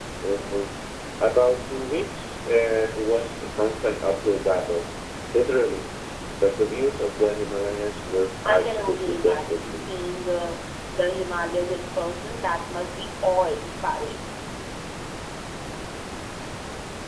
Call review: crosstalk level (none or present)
present